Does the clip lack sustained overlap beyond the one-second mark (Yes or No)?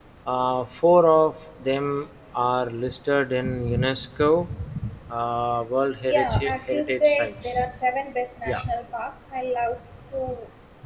No